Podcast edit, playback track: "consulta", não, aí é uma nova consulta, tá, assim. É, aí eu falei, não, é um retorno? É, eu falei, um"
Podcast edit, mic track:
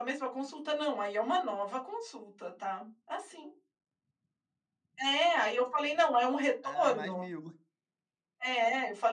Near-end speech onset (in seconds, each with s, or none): 6.6 s